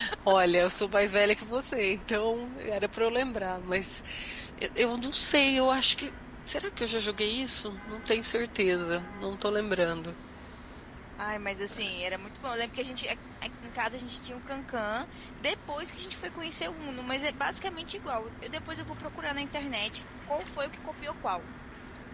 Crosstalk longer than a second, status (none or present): none